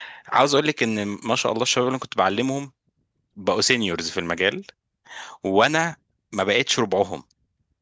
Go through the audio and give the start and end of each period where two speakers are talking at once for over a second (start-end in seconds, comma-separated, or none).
none